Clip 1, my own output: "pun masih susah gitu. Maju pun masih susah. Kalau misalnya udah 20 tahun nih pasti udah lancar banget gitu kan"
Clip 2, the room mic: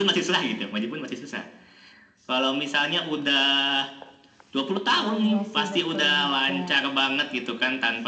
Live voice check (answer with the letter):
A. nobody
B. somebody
B